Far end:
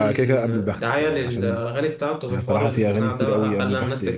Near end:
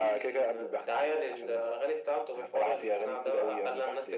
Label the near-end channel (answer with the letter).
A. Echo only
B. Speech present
A